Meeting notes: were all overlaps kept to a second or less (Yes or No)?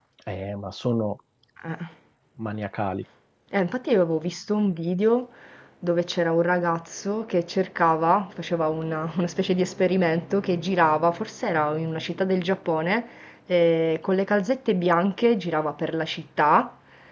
Yes